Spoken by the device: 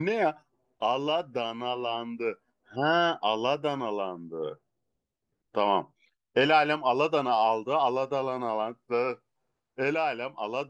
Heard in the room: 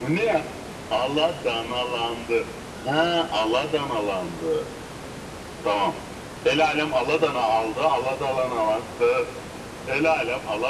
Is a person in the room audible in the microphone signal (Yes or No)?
No